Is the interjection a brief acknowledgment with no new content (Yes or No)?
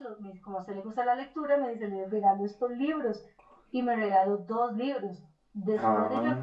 Yes